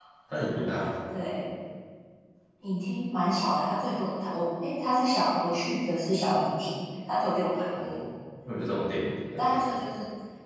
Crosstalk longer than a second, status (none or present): none